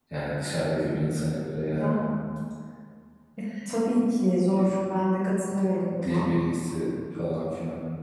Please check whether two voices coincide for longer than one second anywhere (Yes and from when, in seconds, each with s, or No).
No